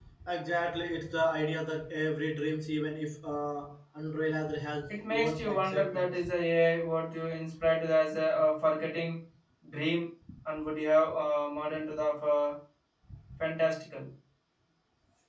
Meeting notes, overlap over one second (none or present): present